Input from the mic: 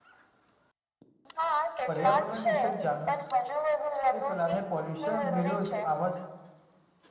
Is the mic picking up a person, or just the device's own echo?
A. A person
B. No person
A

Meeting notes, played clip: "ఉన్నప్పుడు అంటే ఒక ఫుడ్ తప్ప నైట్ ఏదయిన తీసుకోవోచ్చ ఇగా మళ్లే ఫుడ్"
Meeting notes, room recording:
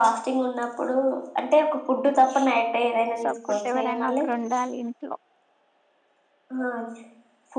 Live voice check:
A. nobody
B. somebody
B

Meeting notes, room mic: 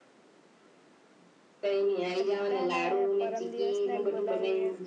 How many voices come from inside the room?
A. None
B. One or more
B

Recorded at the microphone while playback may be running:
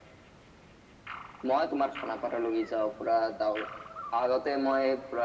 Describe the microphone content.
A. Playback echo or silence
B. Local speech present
A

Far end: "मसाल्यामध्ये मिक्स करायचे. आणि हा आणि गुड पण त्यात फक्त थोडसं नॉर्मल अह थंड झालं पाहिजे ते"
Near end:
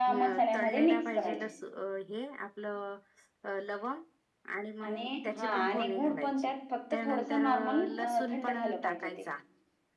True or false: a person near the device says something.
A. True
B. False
A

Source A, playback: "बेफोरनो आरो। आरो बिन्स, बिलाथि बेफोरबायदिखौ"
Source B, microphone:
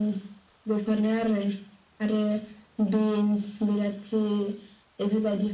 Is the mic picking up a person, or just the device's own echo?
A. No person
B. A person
A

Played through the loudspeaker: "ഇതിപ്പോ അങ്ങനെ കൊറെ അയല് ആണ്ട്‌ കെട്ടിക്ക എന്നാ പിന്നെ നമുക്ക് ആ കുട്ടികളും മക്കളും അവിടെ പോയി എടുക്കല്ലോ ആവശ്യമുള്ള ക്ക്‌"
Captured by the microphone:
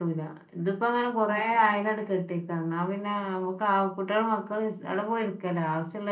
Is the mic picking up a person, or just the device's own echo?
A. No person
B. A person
A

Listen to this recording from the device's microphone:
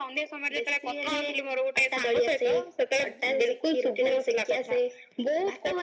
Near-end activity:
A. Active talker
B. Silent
B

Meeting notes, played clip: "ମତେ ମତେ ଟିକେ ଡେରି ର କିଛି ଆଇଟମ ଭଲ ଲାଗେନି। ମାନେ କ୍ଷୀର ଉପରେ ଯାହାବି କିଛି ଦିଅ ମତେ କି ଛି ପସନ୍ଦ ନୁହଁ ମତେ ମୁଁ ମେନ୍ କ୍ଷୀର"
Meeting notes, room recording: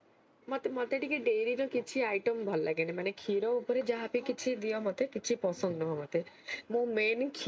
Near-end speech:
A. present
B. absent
B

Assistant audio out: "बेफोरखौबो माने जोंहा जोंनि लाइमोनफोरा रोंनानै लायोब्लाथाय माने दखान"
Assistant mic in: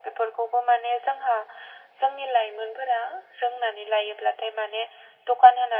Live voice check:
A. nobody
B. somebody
A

